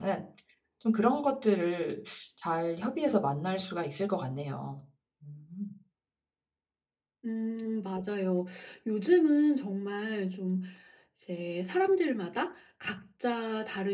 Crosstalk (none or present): none